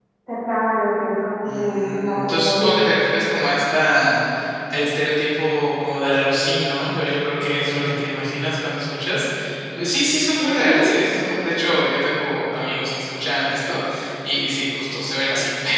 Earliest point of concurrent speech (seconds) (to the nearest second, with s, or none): 1 s